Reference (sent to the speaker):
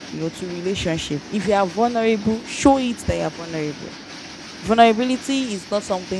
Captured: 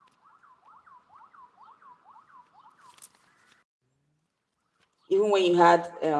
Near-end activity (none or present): present